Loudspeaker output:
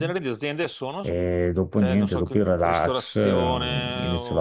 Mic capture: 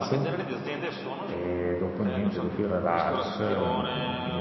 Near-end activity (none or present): none